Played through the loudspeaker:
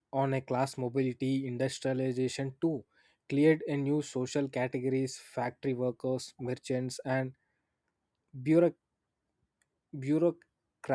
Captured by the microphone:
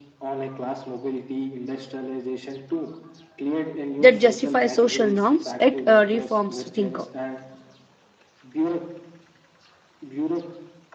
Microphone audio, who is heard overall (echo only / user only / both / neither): both